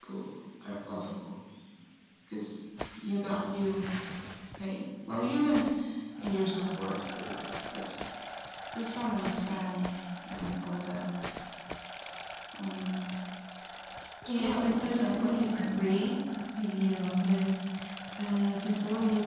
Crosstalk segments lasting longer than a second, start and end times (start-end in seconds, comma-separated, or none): 14.4-15.8